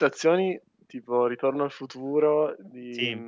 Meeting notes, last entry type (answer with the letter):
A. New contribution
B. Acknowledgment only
B